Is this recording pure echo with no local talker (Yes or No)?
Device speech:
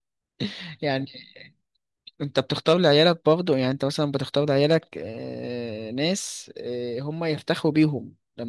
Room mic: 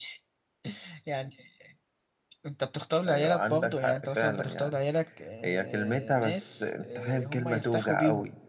No